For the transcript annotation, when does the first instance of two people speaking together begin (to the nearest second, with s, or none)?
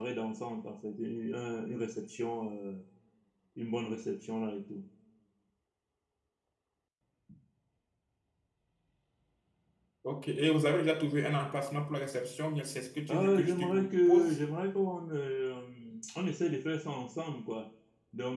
13 s